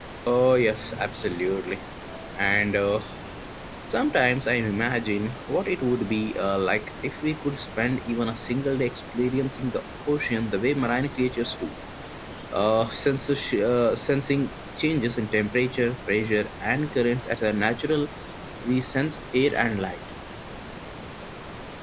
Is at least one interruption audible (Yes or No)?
No